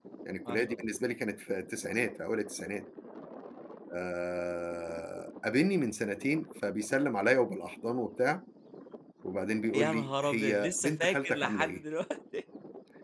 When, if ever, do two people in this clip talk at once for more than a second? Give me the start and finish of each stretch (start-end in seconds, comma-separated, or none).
9.7-11.8